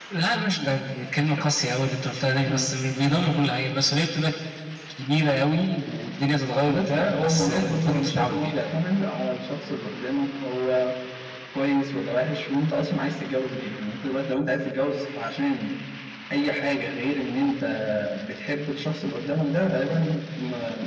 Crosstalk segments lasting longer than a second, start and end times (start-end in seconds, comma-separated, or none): 6.7-8.5